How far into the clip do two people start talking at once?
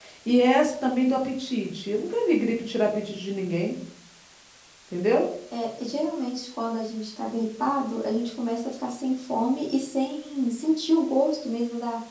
none

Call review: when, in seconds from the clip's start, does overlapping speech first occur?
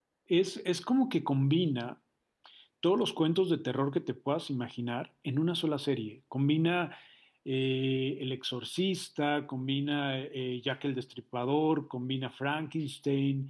none

